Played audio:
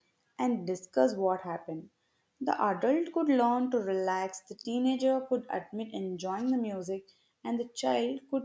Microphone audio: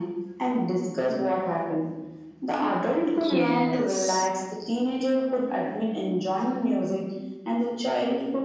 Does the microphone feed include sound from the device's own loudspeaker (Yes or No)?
Yes